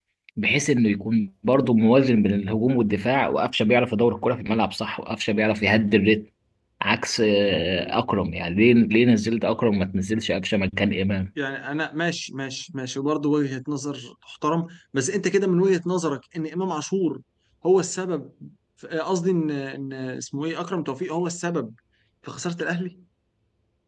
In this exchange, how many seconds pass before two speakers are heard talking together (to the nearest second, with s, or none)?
none